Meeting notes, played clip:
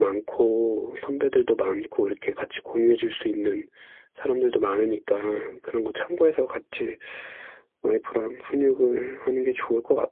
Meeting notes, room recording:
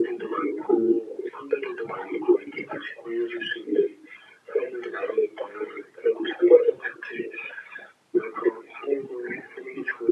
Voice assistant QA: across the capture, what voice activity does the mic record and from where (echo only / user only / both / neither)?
echo only